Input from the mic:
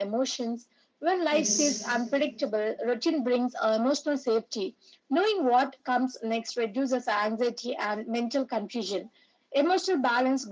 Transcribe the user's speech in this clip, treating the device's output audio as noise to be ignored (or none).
Yes.